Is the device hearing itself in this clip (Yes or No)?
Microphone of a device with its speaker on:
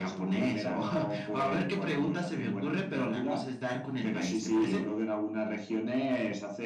Yes